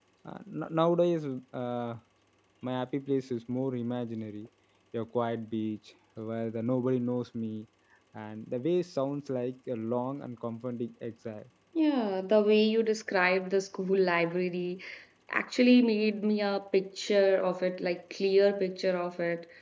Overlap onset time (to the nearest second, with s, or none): none